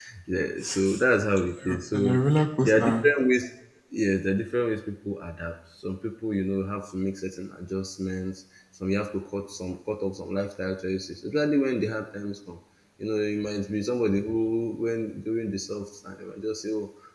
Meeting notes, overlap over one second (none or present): none